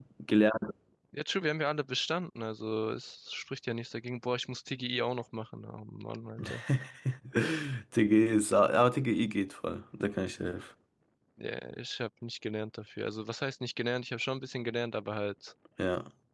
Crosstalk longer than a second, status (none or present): none